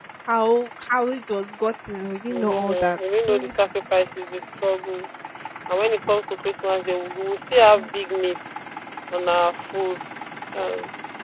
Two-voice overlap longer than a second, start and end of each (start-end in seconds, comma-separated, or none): 2.3-3.5